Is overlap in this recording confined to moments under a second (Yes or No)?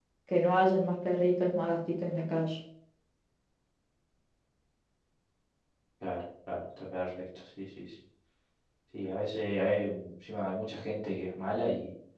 Yes